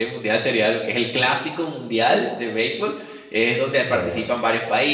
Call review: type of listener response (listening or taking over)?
listening